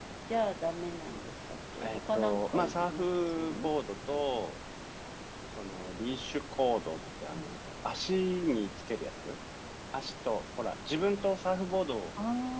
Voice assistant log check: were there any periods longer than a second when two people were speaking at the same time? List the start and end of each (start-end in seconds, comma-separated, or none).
1.8-3.7